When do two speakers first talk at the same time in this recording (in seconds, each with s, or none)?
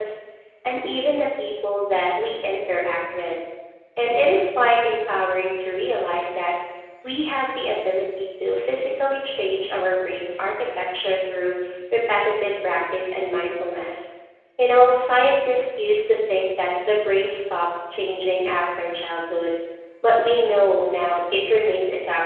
none